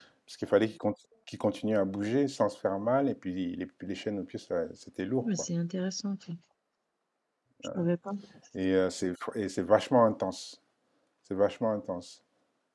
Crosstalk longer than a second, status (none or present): none